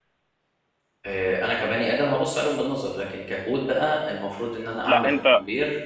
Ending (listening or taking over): listening